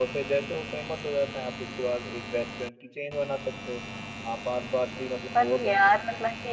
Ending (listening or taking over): taking over